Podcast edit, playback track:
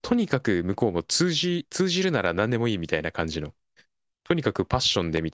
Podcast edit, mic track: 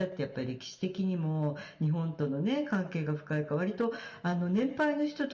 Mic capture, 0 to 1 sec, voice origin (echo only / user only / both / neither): user only